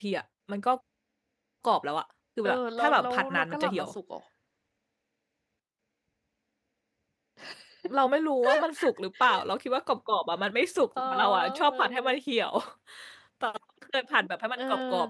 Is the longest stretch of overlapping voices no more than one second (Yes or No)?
No